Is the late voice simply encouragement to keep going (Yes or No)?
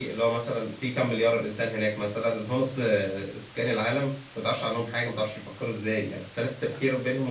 Yes